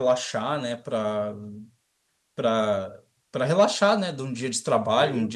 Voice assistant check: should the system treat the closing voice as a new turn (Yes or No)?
No